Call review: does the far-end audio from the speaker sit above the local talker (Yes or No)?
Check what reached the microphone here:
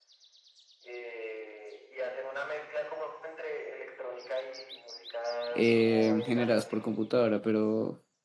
No